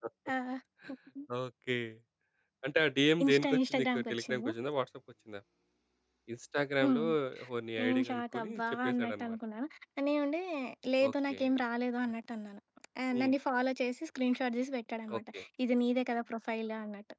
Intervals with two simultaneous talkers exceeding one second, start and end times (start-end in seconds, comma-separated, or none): 3.2-4.5, 7.8-9.4